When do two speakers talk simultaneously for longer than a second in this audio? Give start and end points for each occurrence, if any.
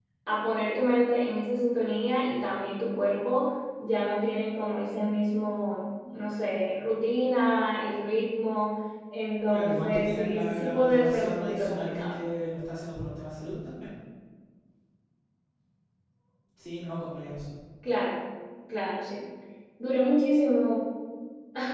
9.5-12.2

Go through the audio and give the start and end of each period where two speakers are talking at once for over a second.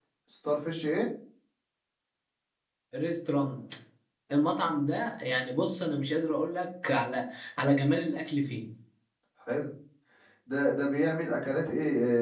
none

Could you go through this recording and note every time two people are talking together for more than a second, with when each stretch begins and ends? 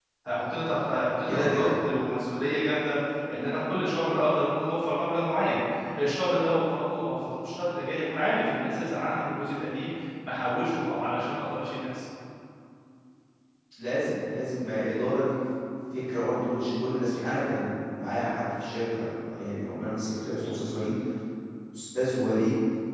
none

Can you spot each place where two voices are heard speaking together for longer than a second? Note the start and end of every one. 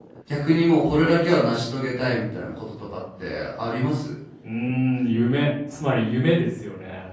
none

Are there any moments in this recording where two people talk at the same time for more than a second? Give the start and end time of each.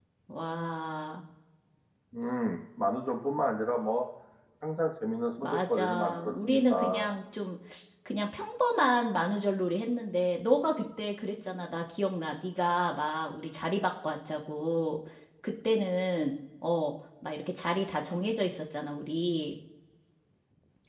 5.4-7.1

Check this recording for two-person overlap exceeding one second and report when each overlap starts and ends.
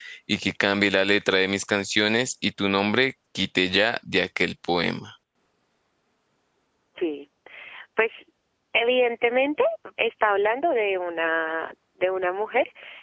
none

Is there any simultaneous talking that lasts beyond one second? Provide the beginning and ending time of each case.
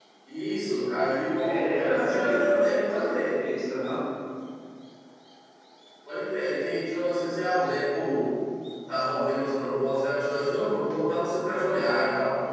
1.4-3.3

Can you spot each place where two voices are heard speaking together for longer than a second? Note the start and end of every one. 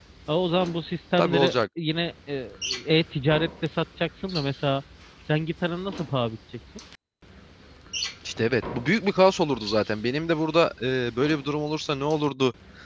none

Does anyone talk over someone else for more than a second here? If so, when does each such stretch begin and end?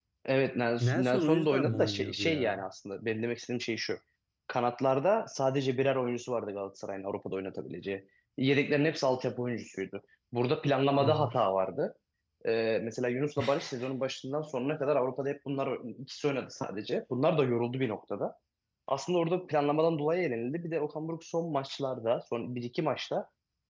0.8-2.6

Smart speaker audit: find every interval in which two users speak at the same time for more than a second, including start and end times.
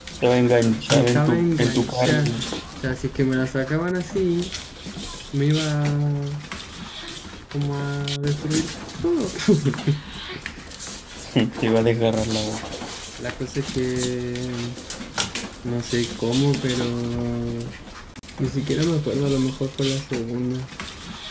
0.8-2.2

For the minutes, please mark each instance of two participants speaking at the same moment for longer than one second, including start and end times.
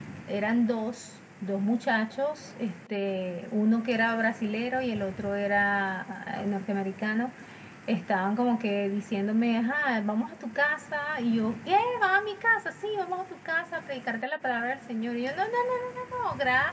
none

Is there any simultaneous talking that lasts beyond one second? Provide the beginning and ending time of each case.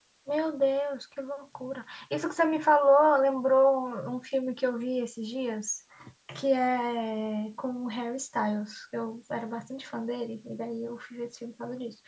none

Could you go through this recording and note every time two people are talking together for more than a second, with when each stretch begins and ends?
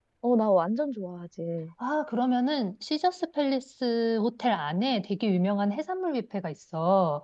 none

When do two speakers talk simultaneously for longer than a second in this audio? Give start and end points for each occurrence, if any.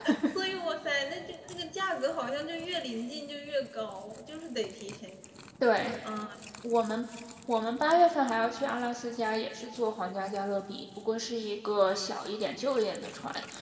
none

